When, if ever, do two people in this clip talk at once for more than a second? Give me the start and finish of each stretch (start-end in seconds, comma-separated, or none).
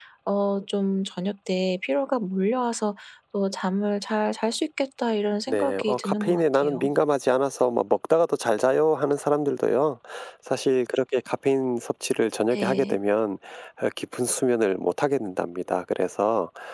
5.5-6.9